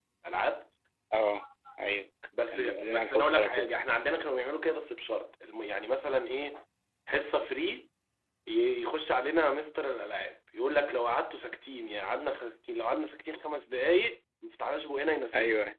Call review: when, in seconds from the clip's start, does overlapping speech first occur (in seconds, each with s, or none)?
2.5 s